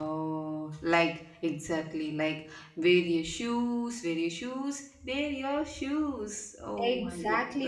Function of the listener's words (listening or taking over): taking over